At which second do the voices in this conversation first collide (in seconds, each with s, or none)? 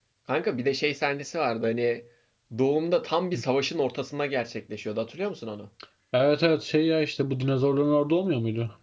none